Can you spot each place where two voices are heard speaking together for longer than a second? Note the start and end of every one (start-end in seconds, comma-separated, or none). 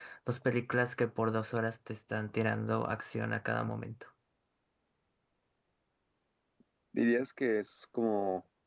none